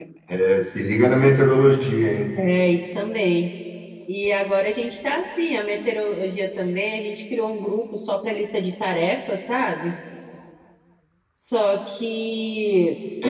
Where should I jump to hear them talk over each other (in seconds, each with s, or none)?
none